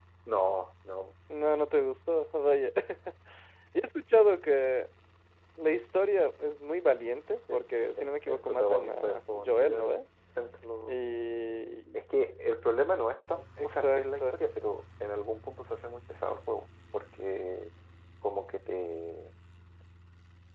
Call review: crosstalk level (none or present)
present